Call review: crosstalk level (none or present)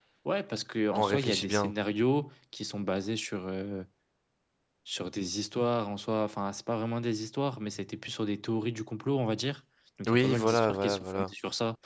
present